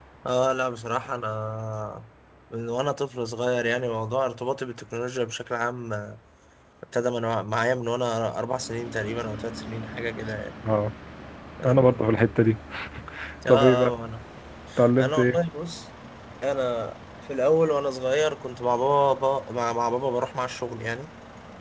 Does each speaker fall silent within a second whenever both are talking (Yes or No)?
Yes